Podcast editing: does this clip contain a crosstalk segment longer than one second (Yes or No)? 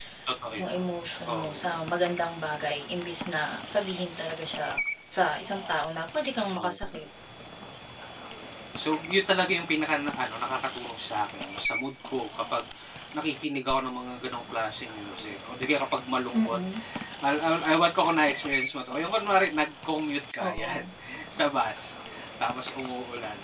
No